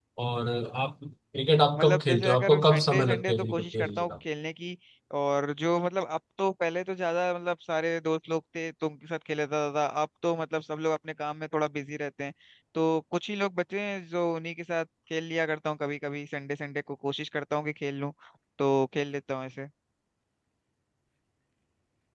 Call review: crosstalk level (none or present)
present